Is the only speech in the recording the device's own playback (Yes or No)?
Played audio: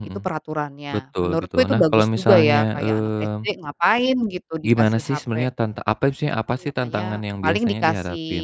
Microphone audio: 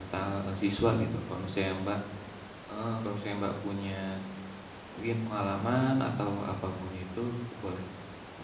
No